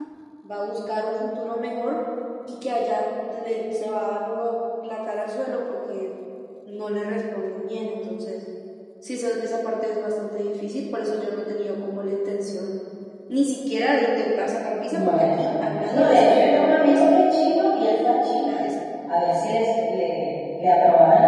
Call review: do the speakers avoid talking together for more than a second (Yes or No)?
No